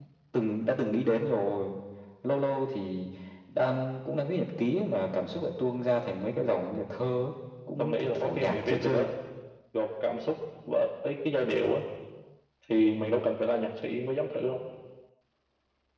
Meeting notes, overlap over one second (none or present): present